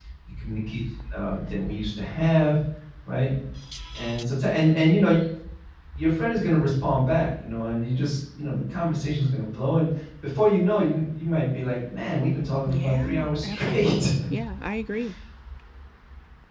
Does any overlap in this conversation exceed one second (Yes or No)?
Yes